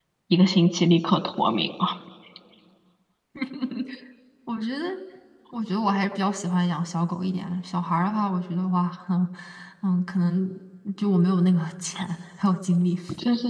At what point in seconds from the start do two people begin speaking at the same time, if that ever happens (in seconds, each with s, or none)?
none